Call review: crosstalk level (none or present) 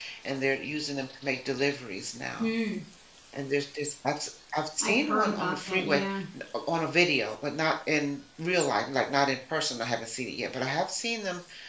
present